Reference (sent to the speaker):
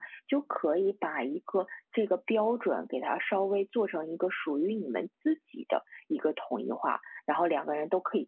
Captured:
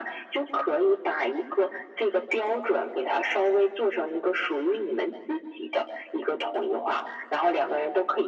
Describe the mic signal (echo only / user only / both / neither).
echo only